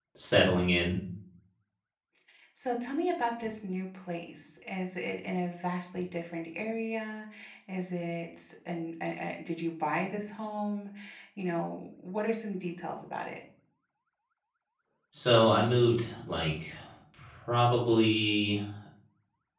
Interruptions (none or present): none